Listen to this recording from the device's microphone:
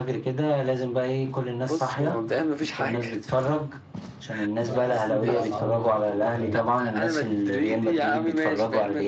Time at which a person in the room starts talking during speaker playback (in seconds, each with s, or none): 4.6 s